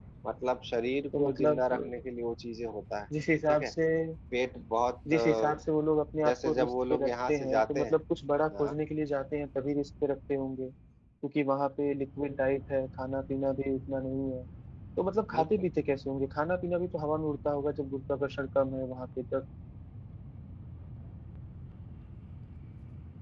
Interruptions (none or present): present